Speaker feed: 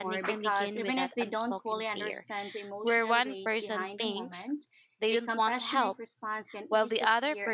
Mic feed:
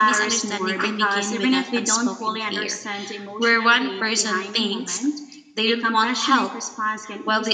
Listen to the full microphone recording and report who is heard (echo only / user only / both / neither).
echo only